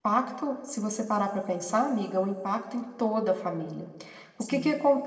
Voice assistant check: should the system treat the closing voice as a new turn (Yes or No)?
No